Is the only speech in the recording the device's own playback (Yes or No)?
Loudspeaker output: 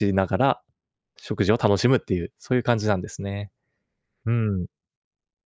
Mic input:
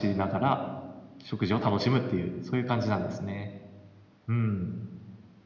Yes